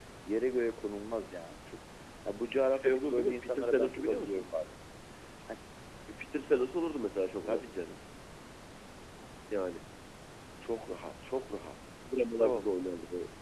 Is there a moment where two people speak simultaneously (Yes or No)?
Yes